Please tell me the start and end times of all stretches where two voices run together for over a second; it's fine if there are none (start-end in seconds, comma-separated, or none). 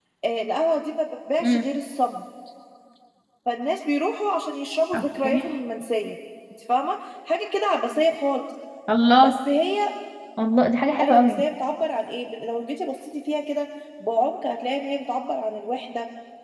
none